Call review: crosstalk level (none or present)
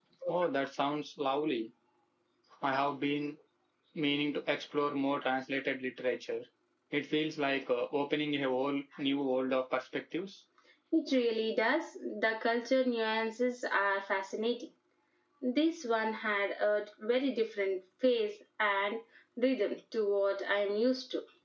none